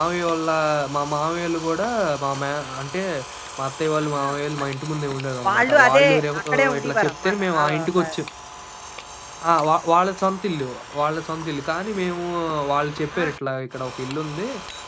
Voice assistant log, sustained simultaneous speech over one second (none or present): present